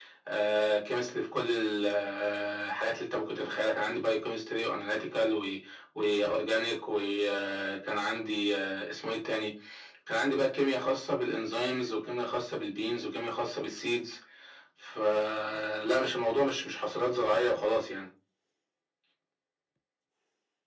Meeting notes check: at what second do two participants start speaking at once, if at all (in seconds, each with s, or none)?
none